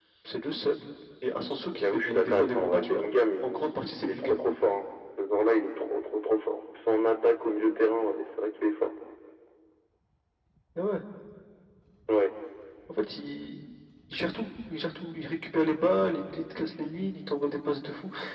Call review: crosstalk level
present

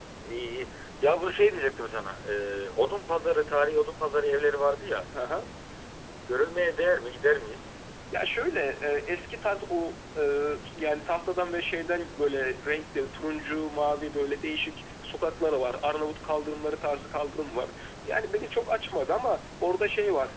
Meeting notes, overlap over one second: none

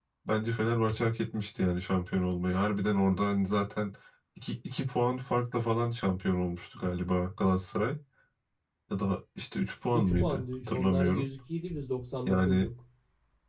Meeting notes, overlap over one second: present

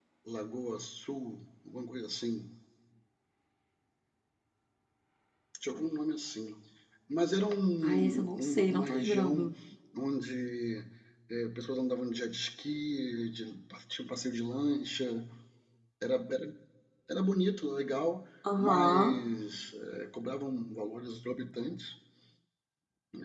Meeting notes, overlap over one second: present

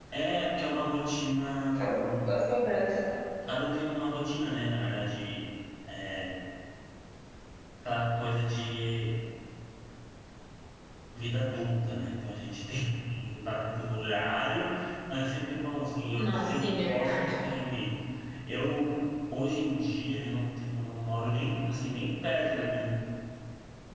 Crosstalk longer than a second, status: present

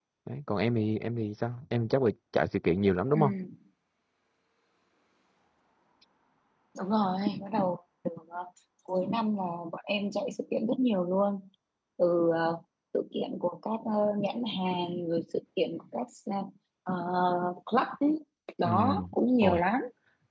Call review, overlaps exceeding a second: none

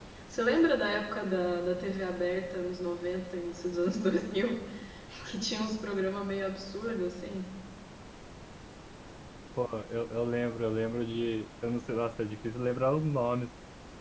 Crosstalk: none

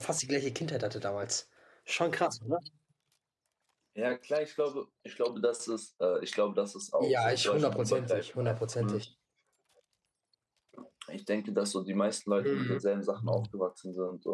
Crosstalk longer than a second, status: present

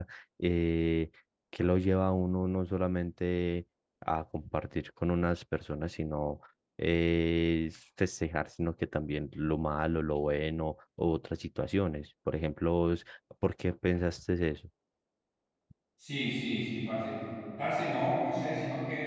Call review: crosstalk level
none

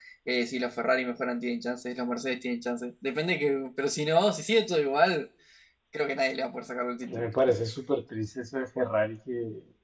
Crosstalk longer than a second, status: none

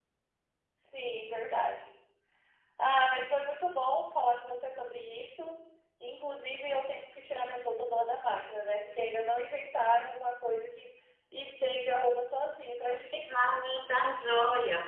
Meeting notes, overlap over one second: none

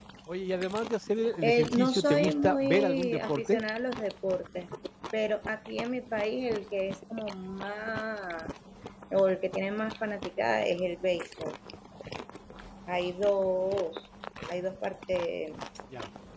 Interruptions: present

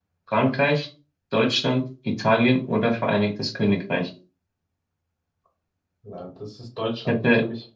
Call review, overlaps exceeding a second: none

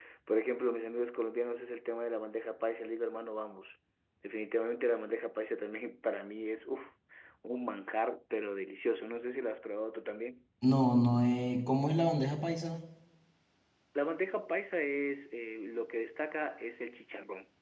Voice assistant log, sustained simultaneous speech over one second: none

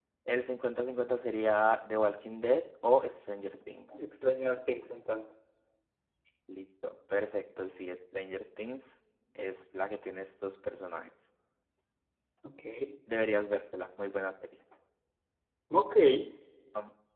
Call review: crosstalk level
none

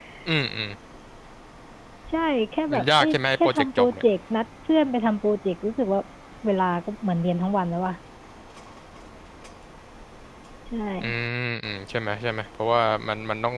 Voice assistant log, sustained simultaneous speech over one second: present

